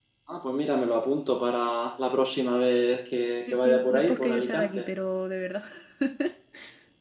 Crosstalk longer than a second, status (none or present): present